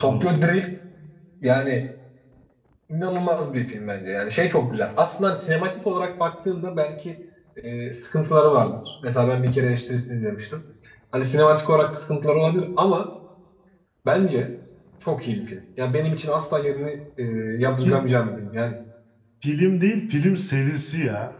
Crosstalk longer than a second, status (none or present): none